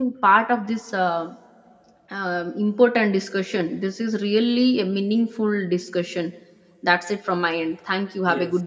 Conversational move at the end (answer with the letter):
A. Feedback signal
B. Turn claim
B